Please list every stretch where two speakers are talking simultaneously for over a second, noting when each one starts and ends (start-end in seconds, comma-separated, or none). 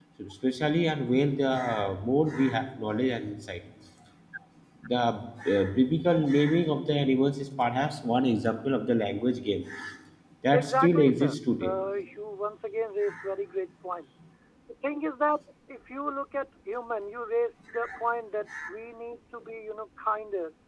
10.5-11.7